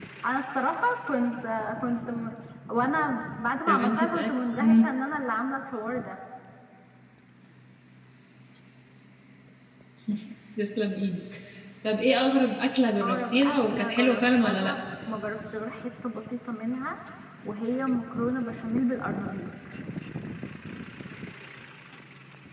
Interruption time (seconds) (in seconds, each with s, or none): 3.7 s